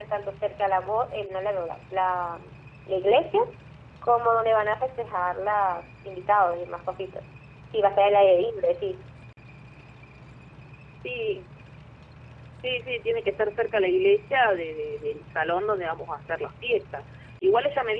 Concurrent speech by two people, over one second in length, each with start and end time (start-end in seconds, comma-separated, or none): none